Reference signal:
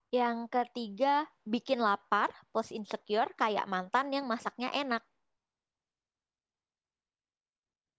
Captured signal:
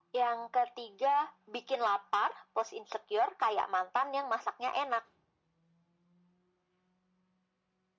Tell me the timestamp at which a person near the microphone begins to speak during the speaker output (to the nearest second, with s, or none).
none